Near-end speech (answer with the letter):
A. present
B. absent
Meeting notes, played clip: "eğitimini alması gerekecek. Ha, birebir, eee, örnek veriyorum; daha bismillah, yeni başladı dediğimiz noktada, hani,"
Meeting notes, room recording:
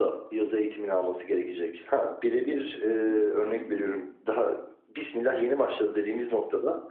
A